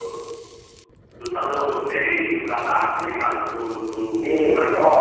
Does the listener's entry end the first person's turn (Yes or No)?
Yes